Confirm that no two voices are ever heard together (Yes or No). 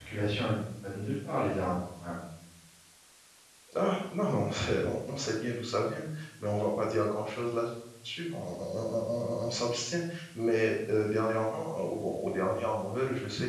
Yes